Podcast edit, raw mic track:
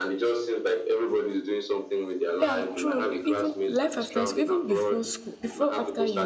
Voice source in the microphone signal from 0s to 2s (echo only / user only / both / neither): echo only